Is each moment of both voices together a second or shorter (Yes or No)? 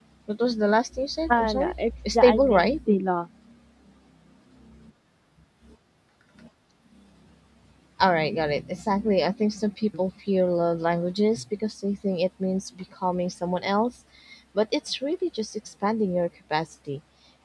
No